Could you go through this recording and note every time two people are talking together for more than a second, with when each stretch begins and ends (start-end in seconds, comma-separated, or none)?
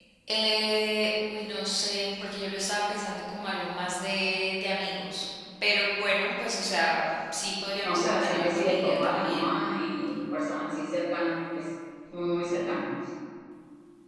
7.8-9.5